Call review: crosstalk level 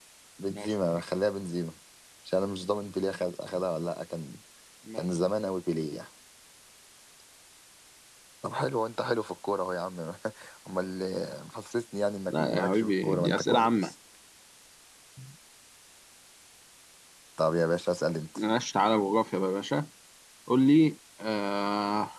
present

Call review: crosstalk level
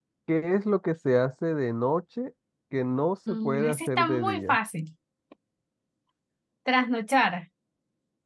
present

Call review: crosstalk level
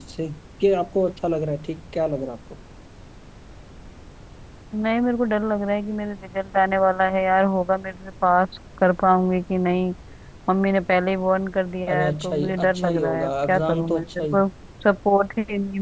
present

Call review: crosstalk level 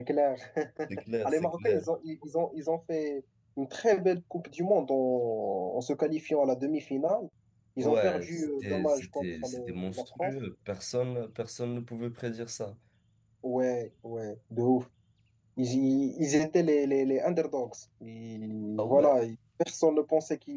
present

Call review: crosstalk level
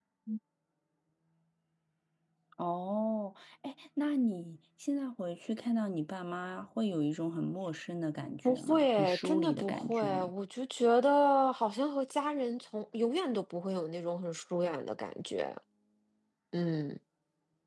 present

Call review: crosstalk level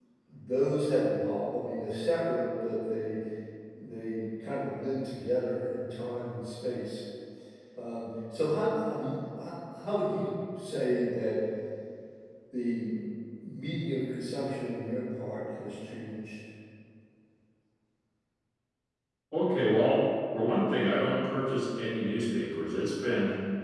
none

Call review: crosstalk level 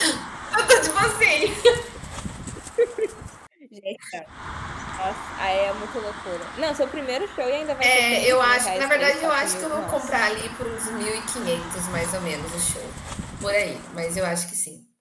present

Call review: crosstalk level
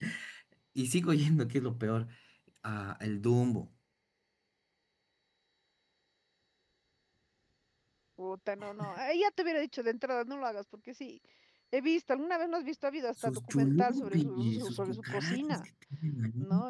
present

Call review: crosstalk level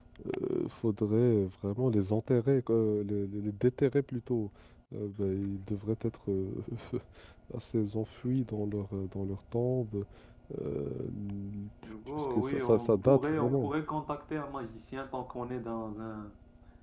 present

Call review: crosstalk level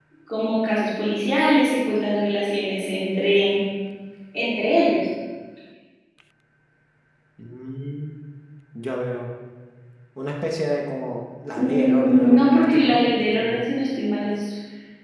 present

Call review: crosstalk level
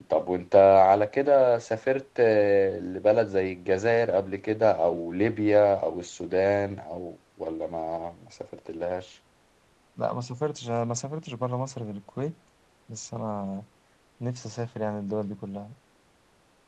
none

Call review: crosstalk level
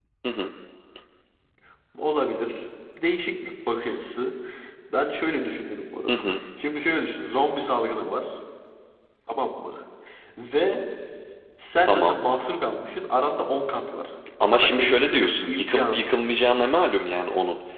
present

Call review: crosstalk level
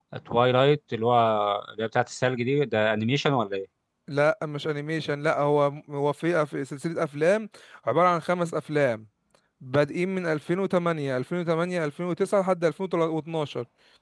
none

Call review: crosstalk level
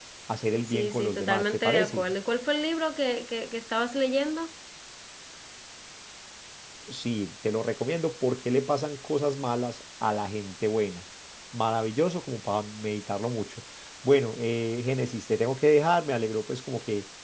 present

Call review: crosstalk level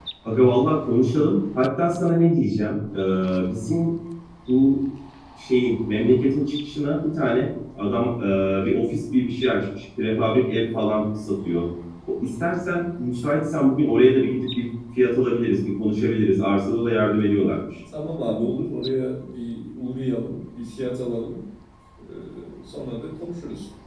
none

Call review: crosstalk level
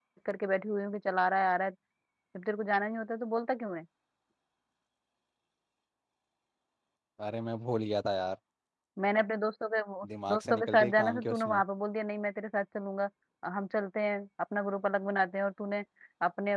present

